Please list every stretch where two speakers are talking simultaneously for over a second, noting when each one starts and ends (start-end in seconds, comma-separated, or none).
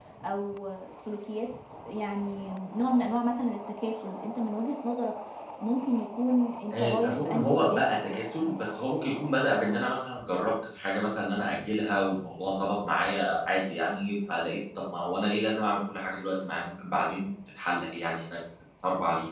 6.7-8.2